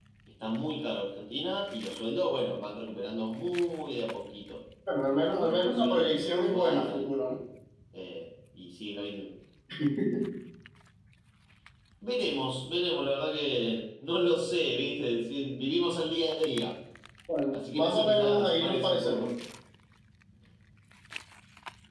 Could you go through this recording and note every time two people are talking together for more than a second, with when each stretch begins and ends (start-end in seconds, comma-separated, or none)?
5.1-7.1, 17.5-19.3